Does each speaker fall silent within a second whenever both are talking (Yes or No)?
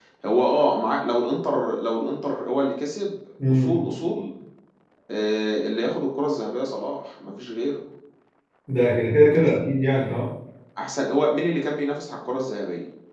Yes